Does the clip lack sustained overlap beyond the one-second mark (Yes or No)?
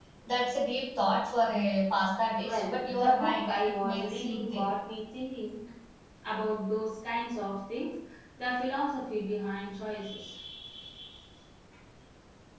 No